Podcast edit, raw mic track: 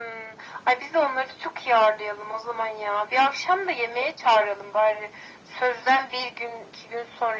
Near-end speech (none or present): none